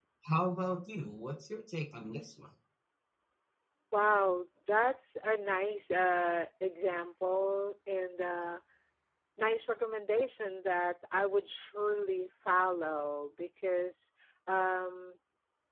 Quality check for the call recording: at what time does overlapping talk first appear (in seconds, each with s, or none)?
none